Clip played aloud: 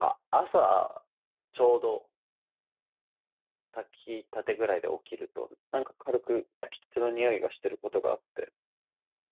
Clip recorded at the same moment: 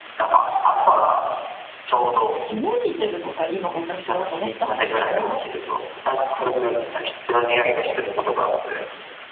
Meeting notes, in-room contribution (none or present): present